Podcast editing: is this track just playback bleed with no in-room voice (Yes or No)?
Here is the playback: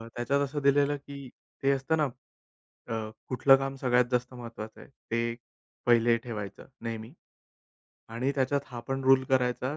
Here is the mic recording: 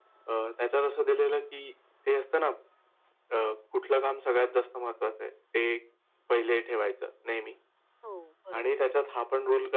No